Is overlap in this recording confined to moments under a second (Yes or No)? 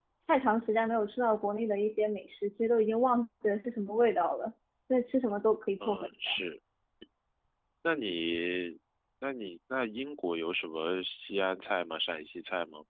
Yes